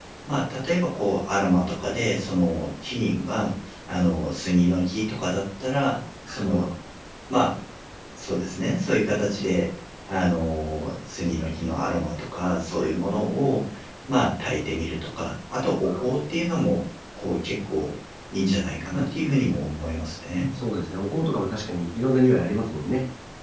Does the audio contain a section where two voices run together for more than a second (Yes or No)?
No